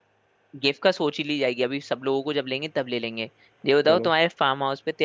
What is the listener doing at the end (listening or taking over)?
listening